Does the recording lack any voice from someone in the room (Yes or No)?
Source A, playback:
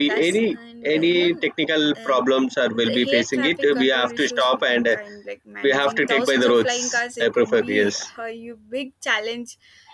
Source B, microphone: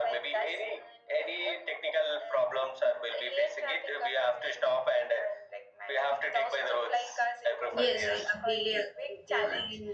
No